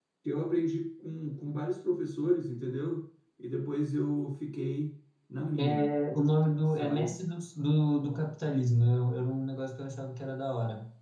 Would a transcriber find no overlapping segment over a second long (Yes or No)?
Yes